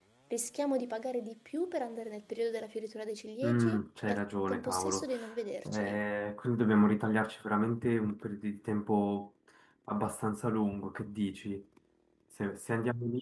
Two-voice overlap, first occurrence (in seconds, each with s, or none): 3.4 s